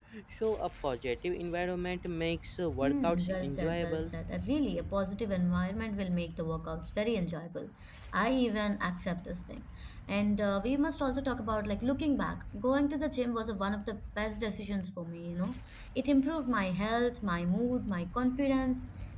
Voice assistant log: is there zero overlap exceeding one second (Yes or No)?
No